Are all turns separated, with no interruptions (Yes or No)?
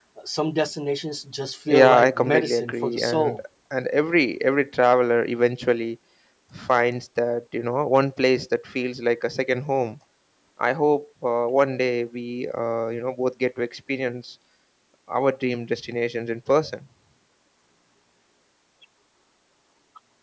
No